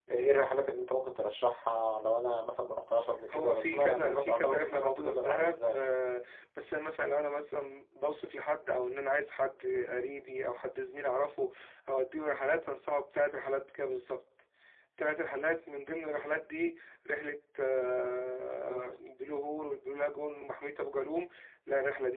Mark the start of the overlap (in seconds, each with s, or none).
3.3 s